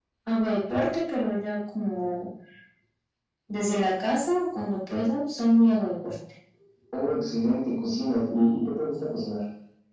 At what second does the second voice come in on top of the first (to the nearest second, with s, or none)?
none